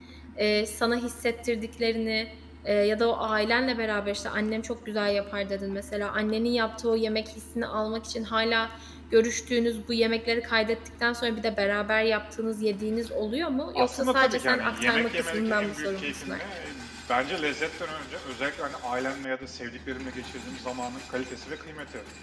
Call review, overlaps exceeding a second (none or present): present